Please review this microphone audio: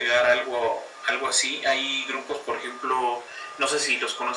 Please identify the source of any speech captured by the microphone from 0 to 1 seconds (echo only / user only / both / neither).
echo only